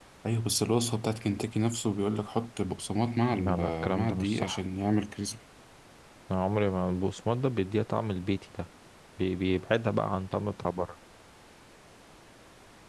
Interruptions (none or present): present